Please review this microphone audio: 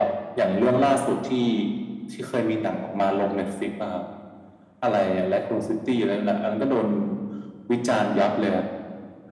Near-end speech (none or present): none